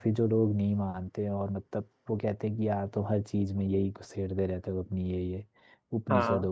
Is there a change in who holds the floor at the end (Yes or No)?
No